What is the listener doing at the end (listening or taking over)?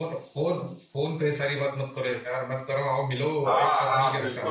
taking over